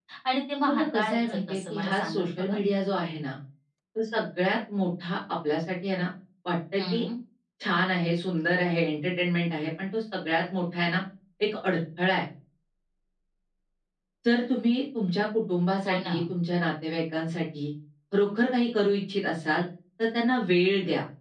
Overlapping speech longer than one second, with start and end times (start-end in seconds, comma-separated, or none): 0.7-2.6